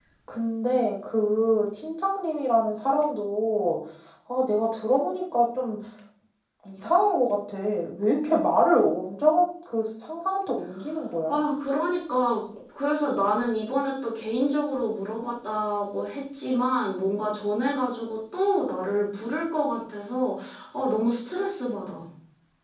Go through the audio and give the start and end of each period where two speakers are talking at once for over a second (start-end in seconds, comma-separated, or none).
none